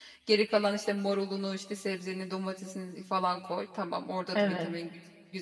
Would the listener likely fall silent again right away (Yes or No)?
Yes